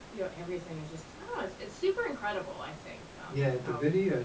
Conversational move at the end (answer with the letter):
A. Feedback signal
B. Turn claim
B